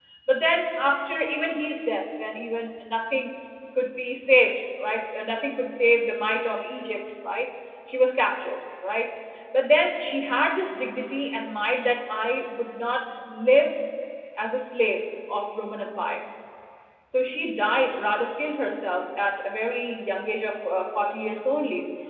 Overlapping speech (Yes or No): No